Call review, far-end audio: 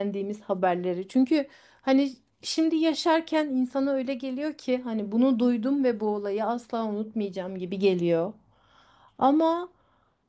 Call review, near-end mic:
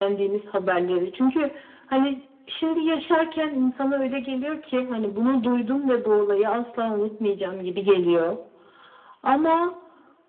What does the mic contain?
echo only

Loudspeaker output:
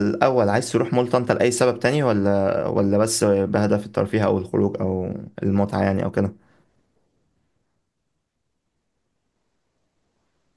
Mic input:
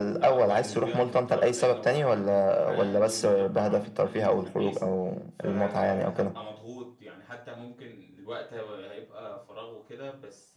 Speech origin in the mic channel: both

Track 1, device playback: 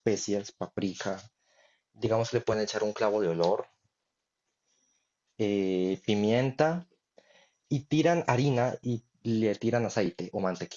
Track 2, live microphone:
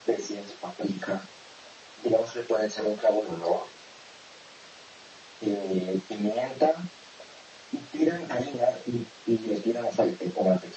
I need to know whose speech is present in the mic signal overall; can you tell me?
echo only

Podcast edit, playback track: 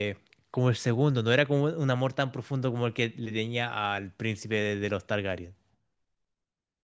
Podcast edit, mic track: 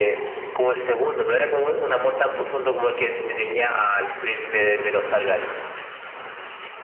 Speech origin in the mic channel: echo only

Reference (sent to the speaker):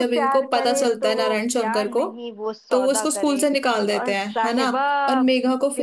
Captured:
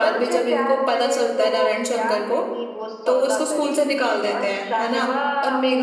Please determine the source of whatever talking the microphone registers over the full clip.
echo only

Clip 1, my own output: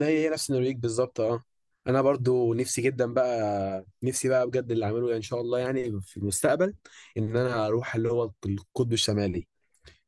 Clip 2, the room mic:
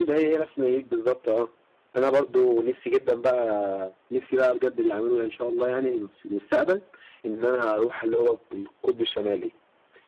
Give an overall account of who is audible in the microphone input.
echo only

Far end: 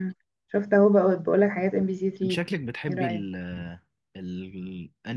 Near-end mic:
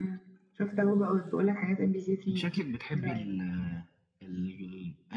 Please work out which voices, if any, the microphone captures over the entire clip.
echo only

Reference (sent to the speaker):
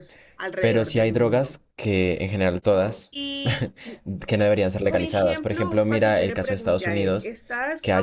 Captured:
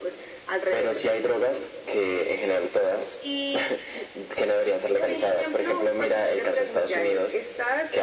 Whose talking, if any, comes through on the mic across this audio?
echo only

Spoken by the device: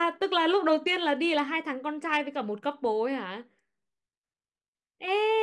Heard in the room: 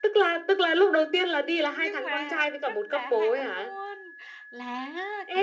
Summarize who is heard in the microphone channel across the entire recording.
both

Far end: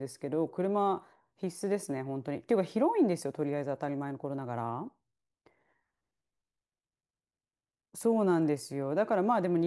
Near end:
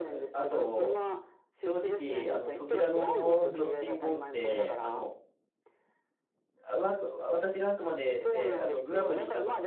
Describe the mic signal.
both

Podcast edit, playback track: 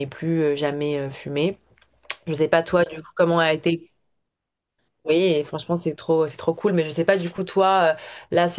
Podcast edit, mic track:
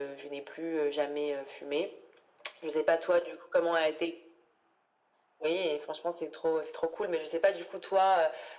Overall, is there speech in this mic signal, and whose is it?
echo only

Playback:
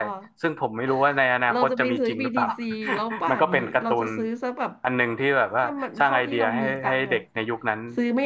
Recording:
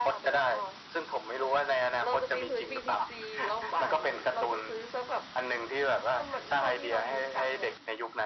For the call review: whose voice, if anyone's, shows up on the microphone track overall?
echo only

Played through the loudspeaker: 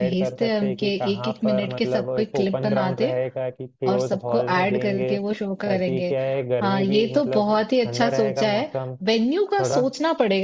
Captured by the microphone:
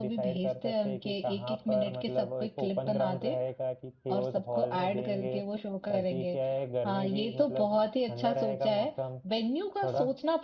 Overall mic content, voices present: echo only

